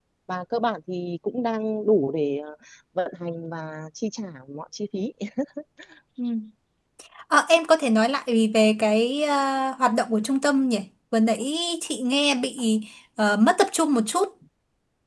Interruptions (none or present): none